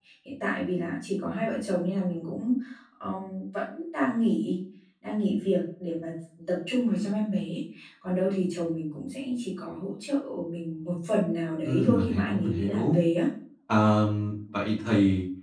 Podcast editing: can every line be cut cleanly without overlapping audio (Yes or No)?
No